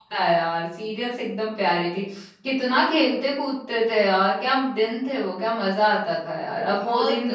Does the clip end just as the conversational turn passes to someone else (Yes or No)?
Yes